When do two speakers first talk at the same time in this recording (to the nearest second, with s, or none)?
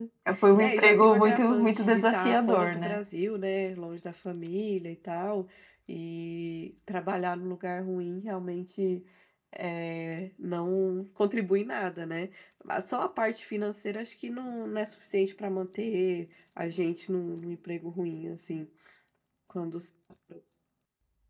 1 s